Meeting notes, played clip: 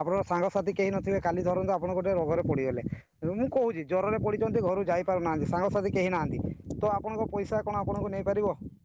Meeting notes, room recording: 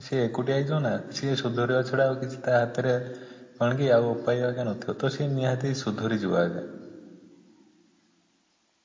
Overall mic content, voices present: user only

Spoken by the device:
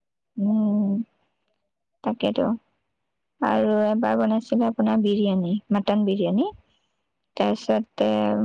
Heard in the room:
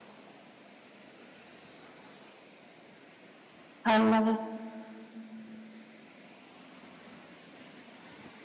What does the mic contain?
user only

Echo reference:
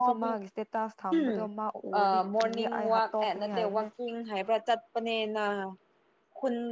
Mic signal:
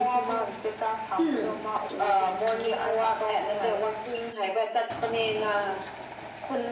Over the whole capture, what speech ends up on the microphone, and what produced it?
echo only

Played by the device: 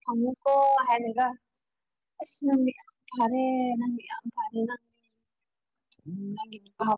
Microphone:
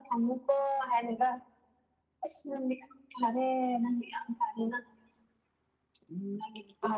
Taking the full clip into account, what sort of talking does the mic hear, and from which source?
echo only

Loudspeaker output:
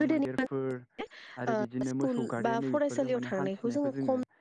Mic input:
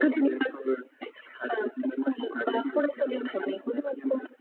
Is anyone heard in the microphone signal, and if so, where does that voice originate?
echo only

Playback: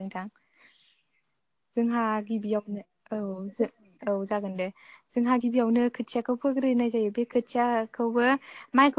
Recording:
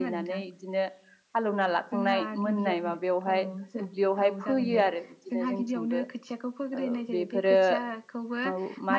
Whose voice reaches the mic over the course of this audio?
both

